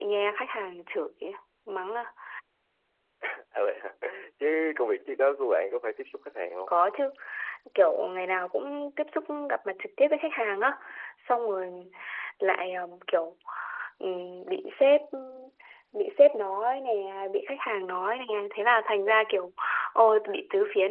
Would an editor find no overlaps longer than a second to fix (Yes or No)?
Yes